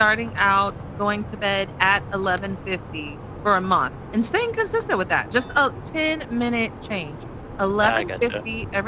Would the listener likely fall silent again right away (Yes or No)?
Yes